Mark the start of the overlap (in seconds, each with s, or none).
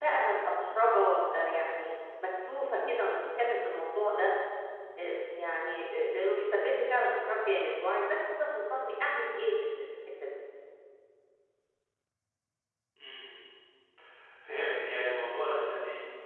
none